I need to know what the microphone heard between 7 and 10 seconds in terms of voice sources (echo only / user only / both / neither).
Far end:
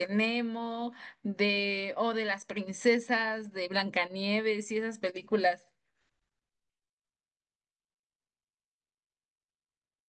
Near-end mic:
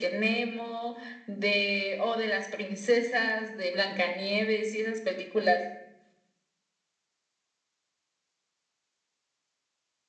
neither